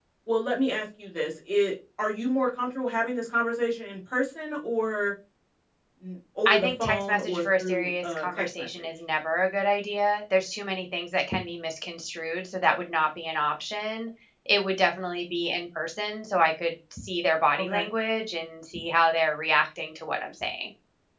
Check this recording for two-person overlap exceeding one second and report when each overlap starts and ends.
6.5-8.9

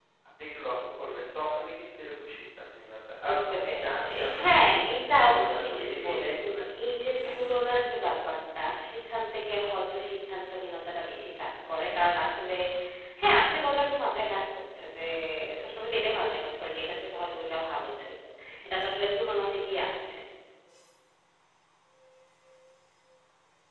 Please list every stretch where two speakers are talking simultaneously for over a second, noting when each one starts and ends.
3.2-4.6, 5.2-6.6

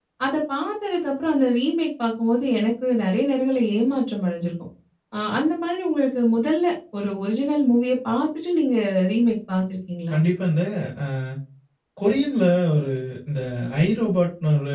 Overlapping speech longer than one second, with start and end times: none

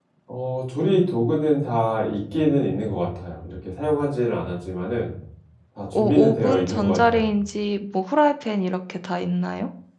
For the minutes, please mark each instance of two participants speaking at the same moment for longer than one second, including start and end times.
5.9-7.3

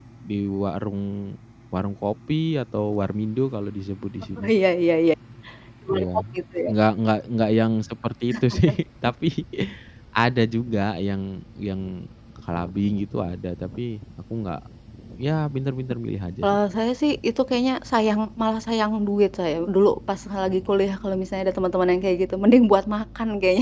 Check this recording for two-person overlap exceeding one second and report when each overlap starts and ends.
none

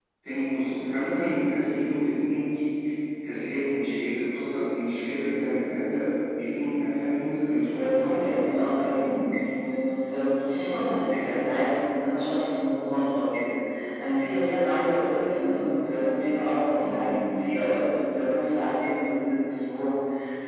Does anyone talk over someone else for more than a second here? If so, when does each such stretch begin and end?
7.7-9.2

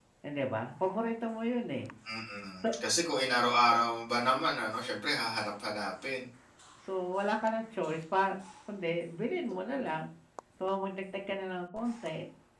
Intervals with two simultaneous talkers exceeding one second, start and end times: none

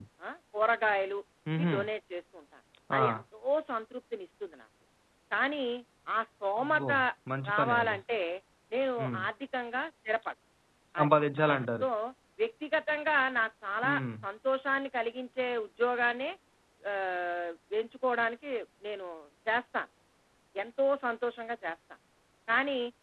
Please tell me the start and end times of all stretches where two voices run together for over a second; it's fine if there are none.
none

